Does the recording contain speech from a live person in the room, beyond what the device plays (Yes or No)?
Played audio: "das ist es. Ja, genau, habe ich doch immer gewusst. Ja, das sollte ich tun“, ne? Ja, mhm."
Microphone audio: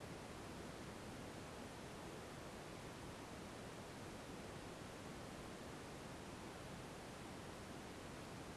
No